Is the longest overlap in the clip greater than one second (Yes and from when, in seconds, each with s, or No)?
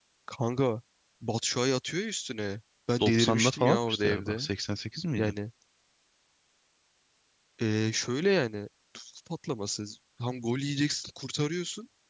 Yes, from 3.0 s